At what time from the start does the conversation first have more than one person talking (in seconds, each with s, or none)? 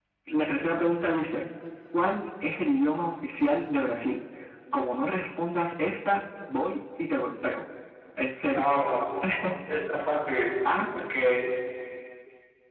none